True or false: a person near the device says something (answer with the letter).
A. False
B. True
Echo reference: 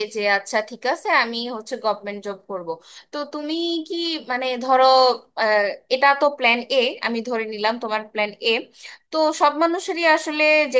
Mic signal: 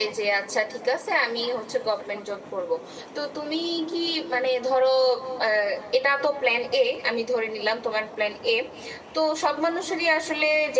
A